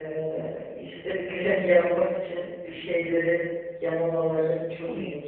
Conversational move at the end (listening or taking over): taking over